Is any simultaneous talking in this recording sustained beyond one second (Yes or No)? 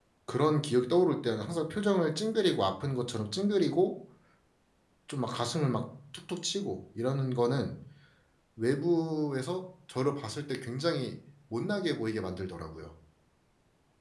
No